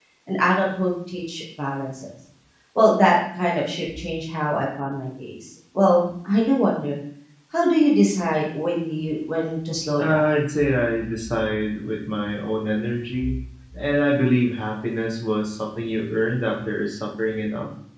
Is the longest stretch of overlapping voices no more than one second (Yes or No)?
Yes